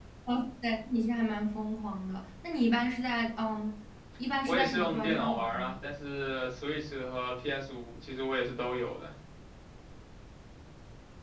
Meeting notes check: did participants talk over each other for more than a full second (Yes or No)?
Yes